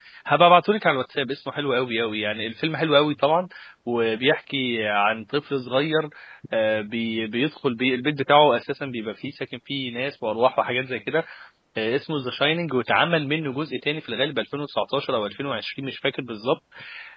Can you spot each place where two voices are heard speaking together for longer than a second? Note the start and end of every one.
none

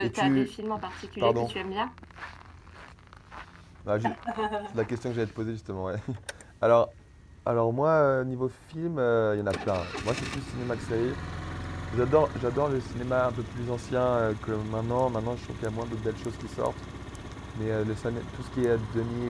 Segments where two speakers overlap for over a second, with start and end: none

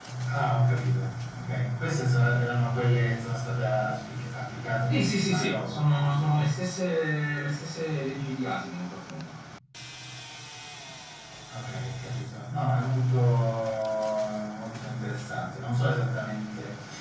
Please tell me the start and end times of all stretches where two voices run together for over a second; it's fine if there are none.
4.9-6.5

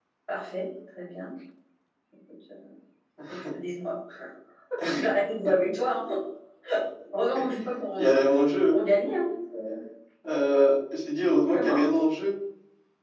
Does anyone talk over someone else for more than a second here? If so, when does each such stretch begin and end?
none

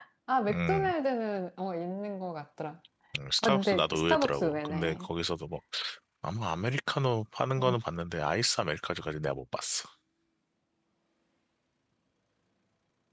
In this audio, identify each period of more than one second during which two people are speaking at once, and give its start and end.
3.4-5.1

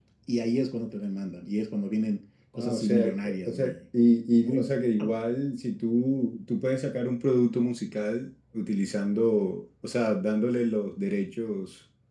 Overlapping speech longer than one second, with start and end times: 2.6-3.8

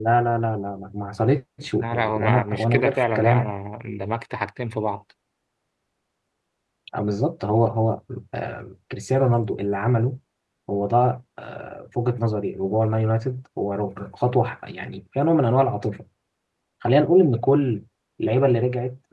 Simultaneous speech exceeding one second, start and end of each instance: 1.8-3.5

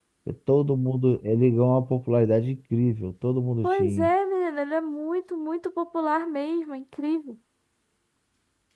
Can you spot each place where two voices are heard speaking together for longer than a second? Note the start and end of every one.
none

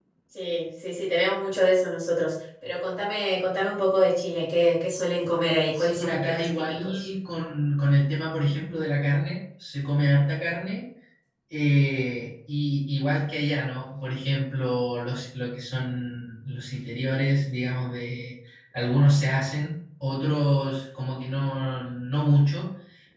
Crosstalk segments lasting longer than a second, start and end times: 5.7-7.1

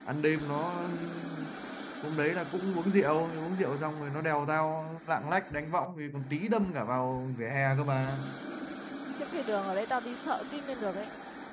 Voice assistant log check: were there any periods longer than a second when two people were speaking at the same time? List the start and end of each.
none

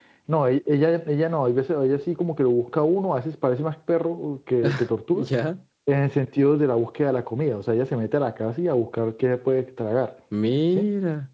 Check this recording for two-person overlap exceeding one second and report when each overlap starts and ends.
none

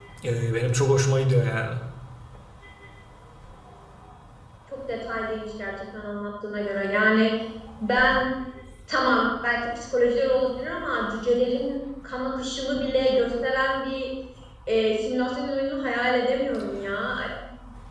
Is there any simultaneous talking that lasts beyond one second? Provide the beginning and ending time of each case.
none

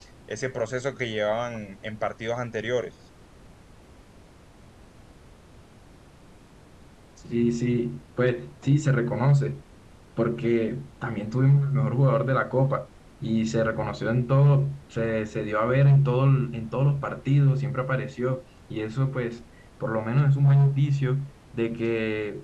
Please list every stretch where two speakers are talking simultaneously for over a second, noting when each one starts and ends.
none

